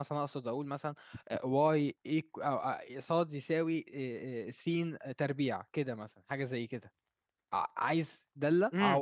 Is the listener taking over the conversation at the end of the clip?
Yes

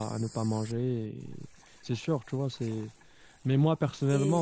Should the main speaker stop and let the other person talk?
No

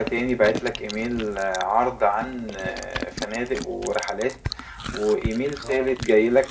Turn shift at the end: No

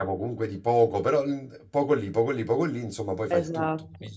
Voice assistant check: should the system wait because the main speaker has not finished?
No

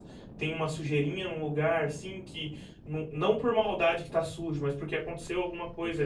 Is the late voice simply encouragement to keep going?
Yes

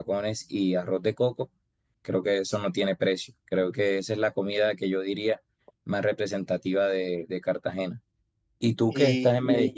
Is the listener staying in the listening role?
Yes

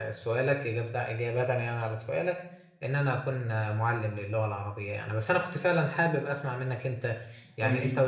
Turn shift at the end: No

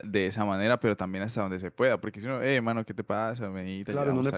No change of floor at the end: No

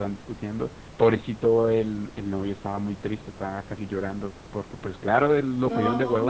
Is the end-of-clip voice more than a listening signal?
No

